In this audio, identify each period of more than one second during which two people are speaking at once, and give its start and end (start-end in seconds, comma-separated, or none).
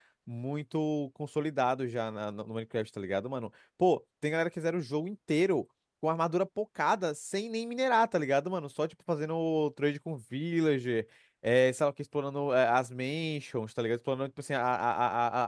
none